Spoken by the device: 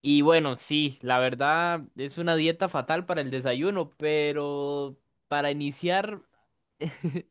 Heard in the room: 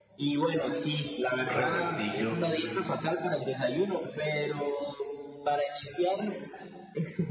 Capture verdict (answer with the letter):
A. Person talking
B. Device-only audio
A